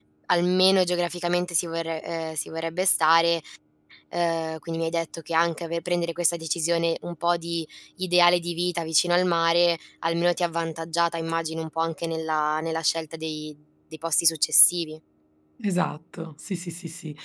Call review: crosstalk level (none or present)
none